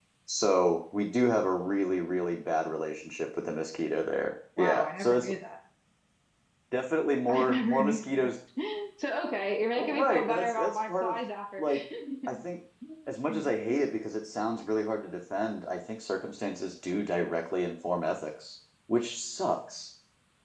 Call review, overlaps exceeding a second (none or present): present